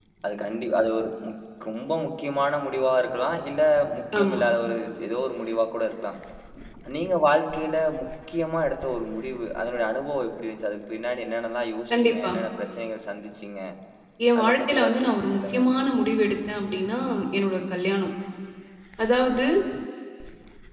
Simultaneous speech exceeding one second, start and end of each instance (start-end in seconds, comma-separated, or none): 14.4-15.6